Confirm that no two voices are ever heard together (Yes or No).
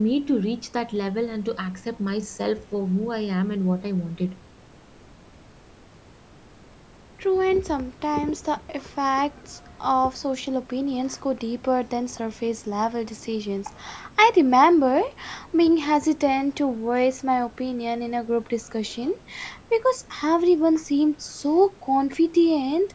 Yes